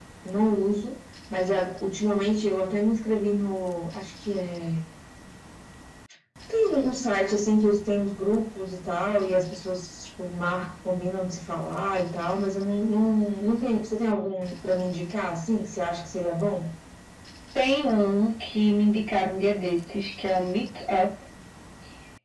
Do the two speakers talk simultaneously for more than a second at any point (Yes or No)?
No